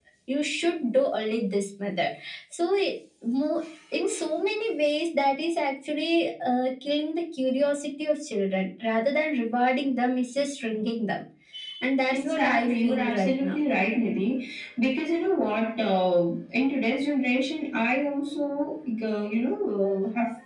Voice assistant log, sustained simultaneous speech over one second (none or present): present